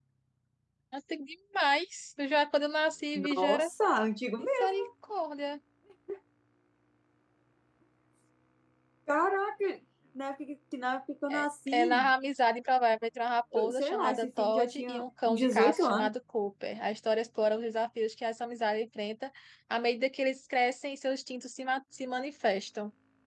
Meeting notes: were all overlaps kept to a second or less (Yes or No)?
No